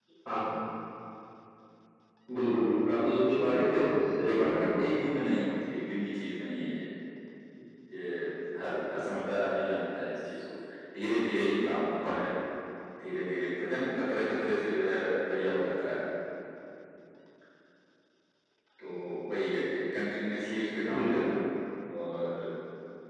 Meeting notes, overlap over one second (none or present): present